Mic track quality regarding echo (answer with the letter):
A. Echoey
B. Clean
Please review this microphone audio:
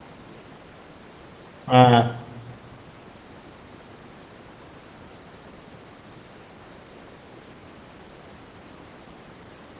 B